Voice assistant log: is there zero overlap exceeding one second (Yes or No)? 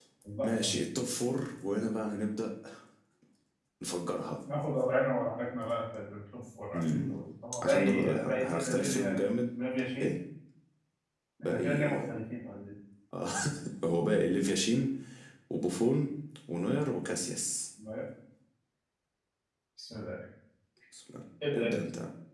No